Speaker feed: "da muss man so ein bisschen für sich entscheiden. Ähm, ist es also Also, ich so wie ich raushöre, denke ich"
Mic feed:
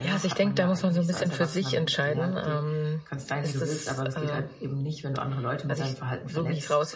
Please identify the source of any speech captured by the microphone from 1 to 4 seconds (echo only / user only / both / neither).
both